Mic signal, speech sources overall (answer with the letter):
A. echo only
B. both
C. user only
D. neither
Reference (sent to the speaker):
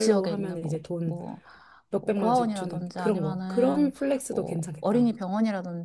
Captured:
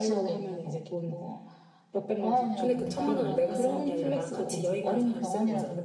B